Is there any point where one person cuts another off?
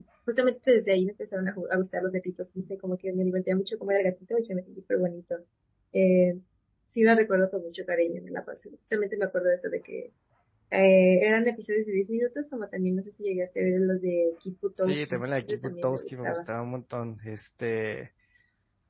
Yes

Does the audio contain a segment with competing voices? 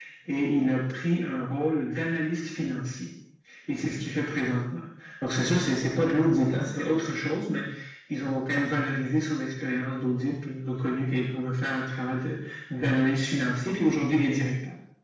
No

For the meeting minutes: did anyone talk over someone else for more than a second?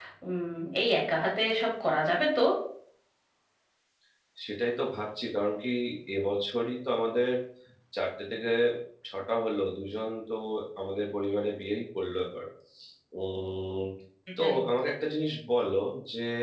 No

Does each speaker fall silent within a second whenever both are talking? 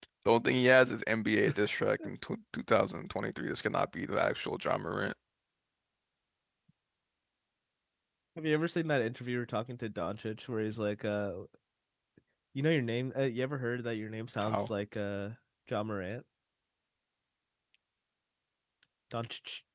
Yes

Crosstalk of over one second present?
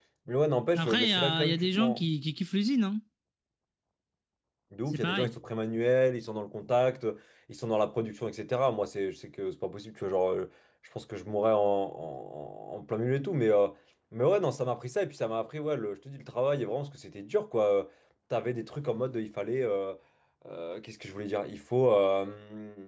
Yes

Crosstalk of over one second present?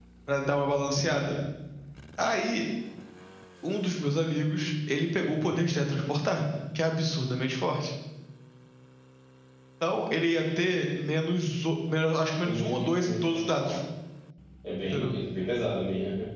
Yes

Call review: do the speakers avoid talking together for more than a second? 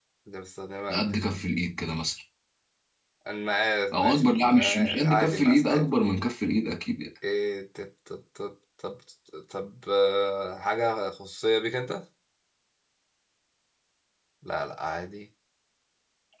No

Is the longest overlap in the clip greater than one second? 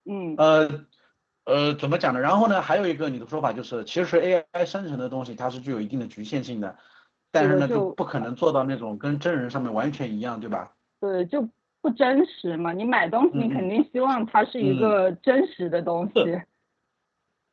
No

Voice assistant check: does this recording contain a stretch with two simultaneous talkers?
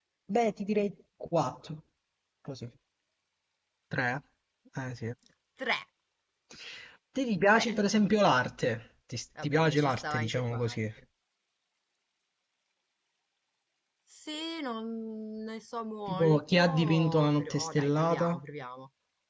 Yes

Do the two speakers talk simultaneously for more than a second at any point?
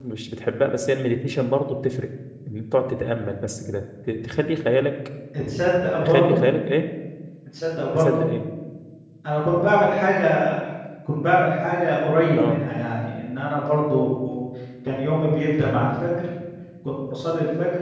No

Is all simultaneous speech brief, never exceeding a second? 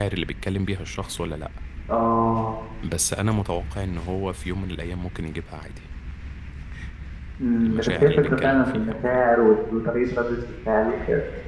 No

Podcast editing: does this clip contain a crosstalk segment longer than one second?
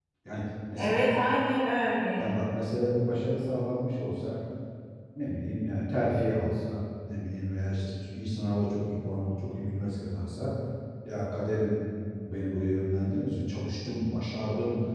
No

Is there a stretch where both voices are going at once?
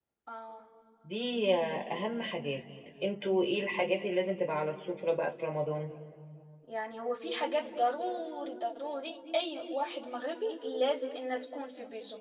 No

